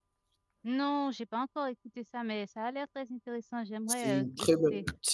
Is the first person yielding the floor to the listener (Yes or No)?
Yes